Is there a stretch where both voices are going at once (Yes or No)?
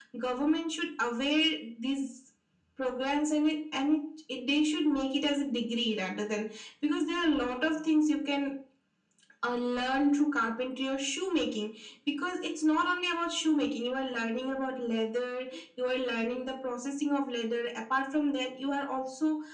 No